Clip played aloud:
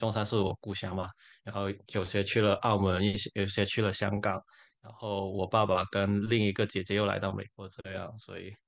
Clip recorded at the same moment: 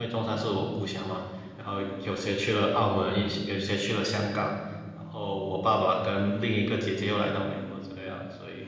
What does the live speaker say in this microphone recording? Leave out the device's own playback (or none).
none